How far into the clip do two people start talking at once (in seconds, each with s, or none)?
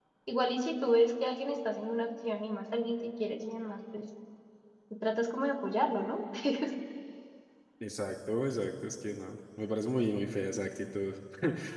none